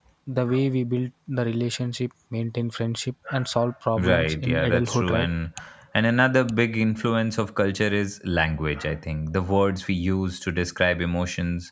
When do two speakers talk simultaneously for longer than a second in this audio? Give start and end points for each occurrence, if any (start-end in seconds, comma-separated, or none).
4.0-5.3